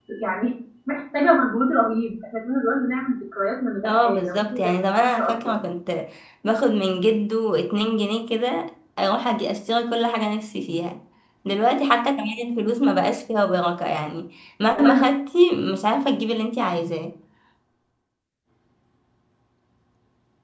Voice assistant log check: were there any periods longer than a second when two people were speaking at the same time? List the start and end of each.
3.9-5.5

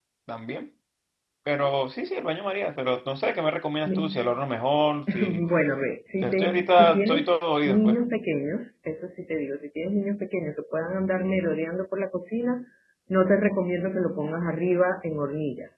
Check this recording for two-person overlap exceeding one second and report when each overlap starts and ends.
6.2-8.0

